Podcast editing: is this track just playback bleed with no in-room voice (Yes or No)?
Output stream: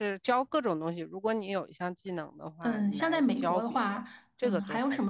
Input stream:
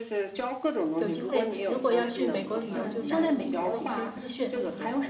No